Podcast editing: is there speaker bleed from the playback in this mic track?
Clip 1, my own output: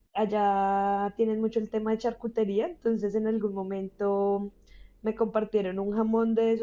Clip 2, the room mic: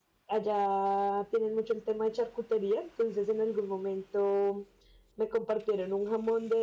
Yes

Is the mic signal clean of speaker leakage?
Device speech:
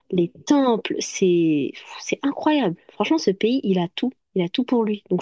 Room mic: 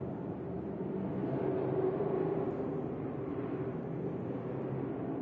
Yes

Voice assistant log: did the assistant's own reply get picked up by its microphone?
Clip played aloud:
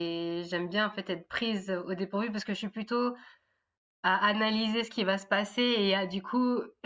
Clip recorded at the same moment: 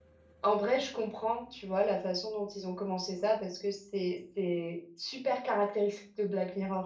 No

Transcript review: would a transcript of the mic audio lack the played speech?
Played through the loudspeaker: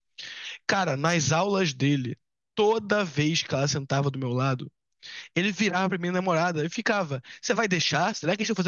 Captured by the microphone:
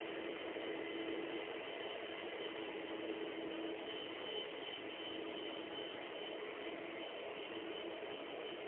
Yes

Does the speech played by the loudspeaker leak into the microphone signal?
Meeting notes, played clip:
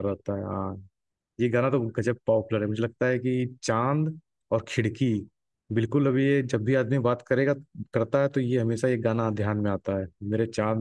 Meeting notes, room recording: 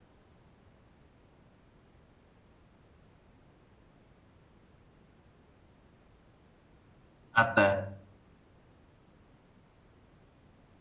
No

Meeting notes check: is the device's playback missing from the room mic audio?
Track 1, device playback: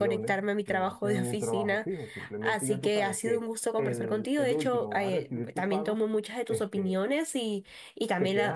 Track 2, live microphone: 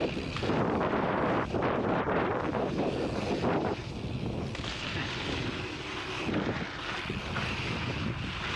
Yes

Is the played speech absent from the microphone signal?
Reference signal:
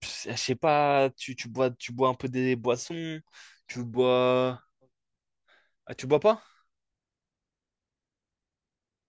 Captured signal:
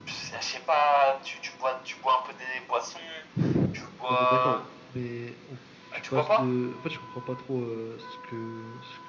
No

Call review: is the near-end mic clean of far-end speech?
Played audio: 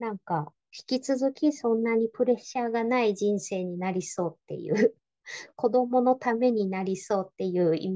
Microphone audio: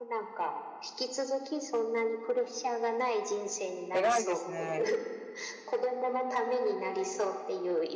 No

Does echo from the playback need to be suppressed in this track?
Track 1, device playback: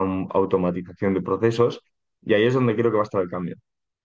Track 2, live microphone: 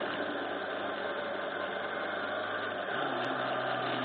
No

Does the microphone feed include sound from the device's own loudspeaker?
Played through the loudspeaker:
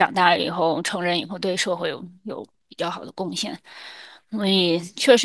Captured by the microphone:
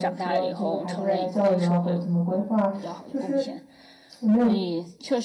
Yes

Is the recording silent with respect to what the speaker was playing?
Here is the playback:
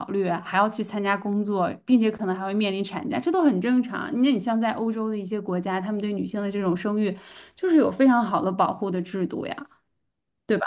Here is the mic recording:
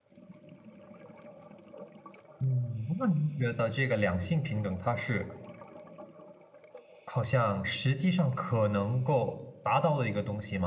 Yes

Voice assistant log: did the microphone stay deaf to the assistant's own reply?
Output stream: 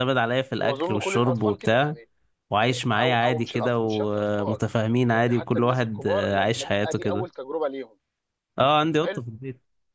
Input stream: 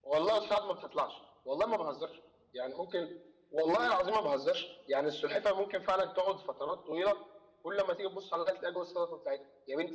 Yes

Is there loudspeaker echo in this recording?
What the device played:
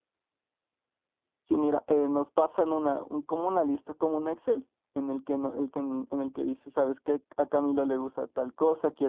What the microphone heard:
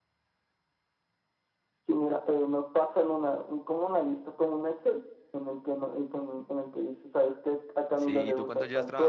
Yes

